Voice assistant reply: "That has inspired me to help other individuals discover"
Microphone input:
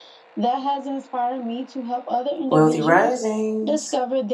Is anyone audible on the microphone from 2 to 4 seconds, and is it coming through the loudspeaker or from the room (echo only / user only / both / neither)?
both